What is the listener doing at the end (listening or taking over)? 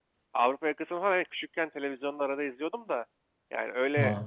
listening